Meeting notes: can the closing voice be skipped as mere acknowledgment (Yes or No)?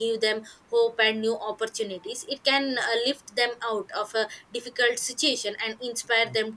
Yes